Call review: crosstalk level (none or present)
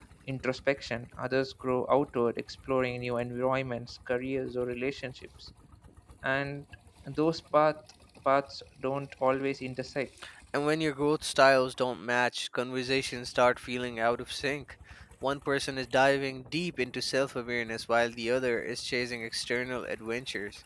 none